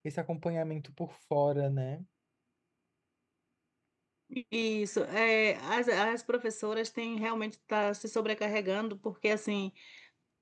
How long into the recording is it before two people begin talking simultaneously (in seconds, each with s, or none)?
none